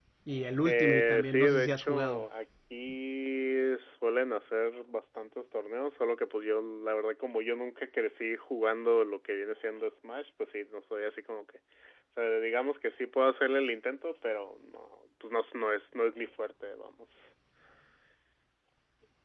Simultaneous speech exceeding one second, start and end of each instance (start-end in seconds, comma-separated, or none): 0.7-2.2